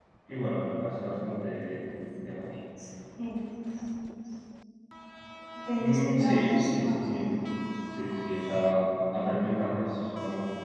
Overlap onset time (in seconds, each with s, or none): 5.8 s